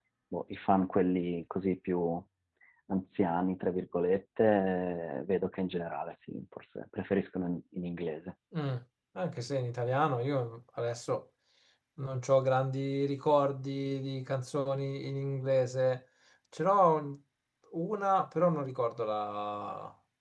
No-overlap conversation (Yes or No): Yes